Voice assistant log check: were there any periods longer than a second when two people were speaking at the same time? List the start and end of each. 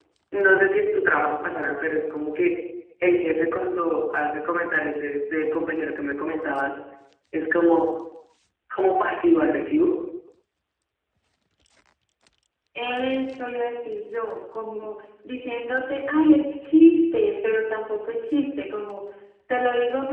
none

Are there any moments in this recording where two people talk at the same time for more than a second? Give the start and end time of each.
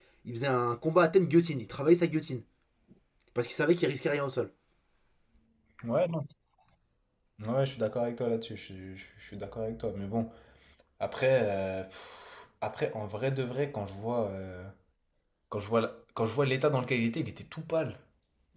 none

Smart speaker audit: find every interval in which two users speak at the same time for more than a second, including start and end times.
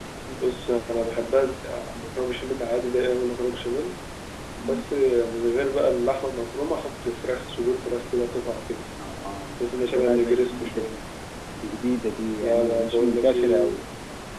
9.6-11.0, 12.4-13.8

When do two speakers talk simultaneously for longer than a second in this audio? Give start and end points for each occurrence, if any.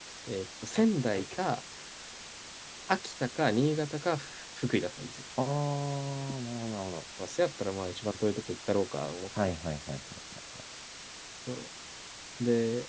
none

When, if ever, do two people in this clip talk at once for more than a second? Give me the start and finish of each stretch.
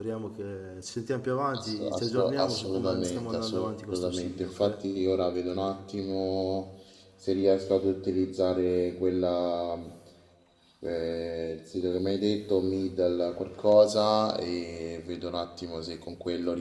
1.6-4.8

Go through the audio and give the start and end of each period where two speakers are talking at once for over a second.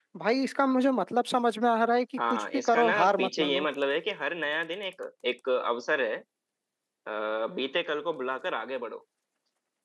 2.3-3.7

